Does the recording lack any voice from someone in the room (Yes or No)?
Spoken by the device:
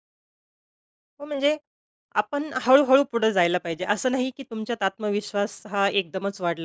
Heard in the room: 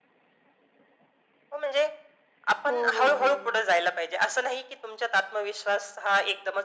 No